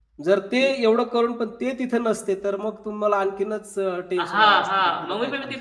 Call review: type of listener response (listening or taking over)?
taking over